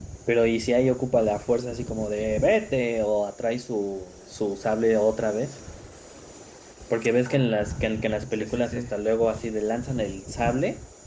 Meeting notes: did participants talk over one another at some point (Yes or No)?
Yes